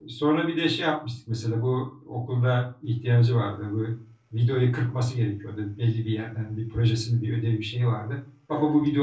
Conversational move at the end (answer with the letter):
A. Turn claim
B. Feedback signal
B